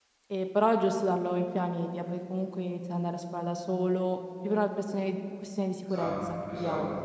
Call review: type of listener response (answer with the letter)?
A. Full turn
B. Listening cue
A